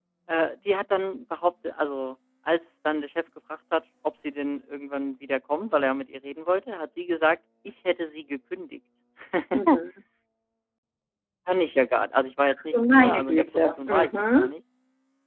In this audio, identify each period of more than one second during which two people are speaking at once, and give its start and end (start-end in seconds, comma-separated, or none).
12.7-14.5